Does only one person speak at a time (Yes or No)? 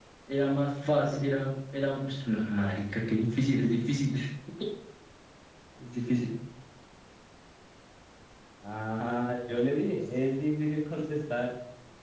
Yes